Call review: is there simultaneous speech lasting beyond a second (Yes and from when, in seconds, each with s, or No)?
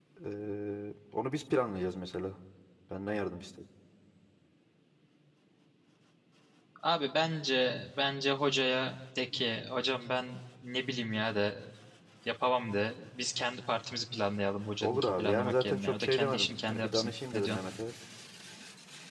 Yes, from 14.8 s